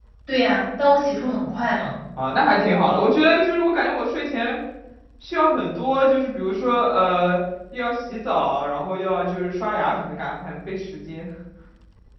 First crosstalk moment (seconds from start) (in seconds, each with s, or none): none